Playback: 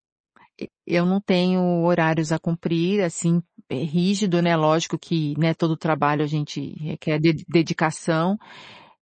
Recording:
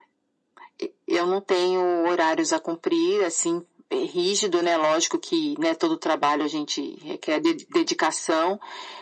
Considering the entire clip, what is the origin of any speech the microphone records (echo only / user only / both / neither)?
echo only